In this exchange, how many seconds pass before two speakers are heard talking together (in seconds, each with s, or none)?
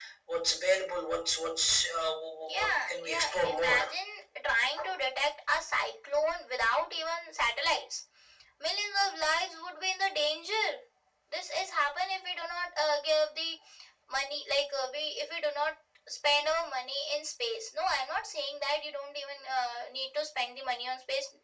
2.4 s